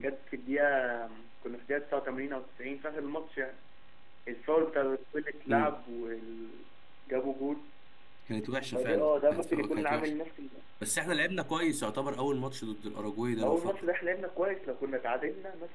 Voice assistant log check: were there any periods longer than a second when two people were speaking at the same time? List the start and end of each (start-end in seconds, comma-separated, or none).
8.7-10.1